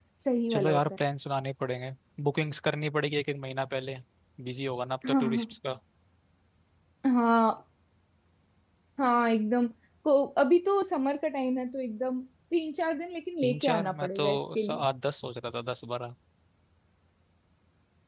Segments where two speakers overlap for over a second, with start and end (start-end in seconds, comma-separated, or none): 13.4-14.8